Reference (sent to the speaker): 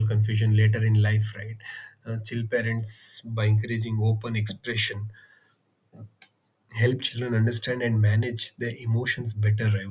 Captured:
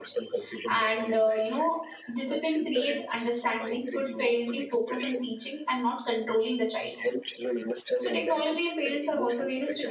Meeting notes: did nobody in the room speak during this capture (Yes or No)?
No